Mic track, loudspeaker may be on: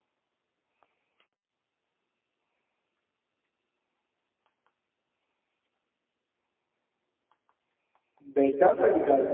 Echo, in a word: none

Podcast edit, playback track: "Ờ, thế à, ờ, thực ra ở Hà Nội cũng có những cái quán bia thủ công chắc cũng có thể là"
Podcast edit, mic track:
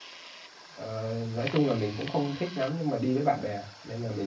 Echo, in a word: none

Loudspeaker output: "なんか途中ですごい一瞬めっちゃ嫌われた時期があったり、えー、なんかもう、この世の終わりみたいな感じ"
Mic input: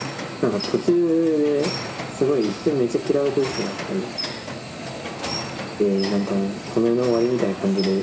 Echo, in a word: present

